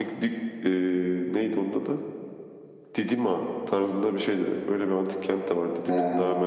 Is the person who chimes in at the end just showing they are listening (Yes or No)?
Yes